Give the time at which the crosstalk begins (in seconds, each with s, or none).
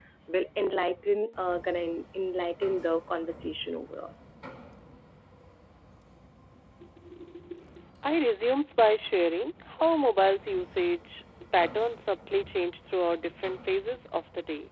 none